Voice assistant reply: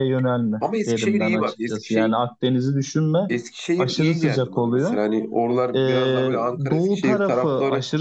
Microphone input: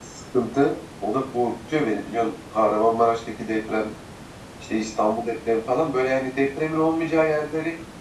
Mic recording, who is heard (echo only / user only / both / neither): user only